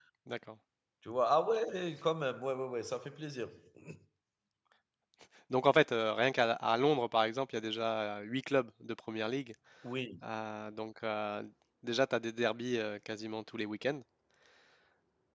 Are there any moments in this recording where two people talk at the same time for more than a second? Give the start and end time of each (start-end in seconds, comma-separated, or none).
none